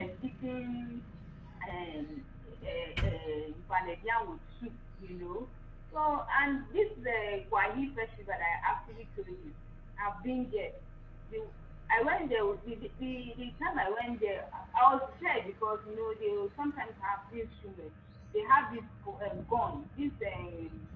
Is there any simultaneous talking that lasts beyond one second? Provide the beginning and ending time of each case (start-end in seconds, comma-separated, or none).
none